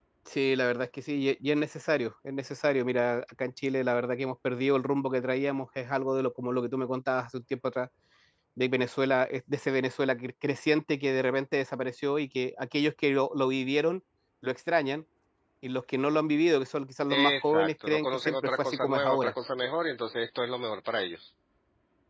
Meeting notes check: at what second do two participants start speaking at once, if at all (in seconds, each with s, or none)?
17.1 s